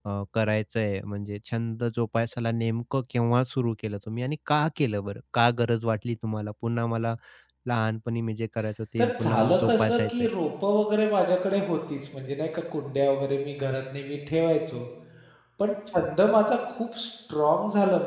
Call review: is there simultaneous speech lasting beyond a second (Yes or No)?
Yes